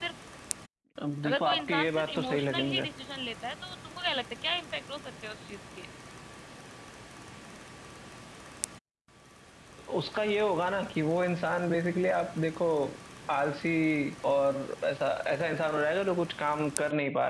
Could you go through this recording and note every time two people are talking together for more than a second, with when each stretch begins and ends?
1.3-2.9

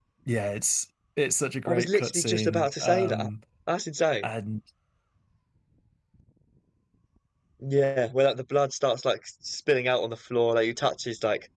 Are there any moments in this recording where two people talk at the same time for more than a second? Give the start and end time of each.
1.7-3.3

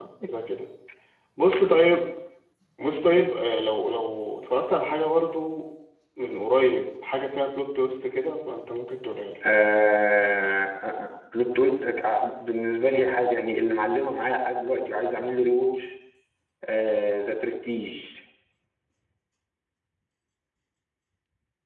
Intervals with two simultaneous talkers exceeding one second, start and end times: none

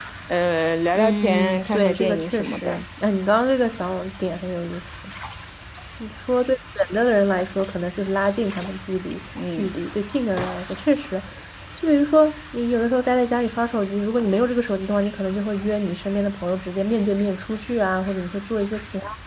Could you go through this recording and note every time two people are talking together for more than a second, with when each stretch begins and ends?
0.9-2.8

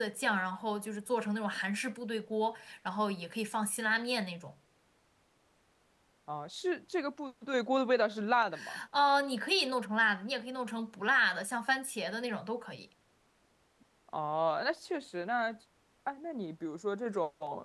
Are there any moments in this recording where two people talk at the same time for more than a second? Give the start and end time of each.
none

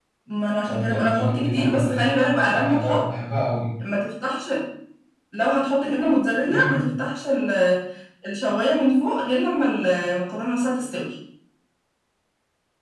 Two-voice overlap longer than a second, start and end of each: 0.6-3.0

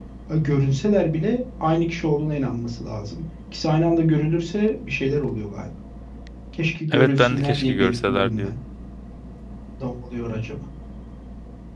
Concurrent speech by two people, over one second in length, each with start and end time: 6.9-8.5

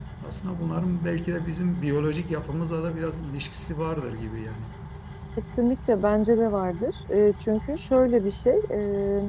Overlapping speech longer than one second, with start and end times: none

